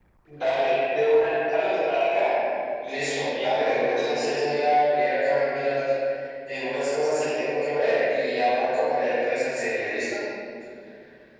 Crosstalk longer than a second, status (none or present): present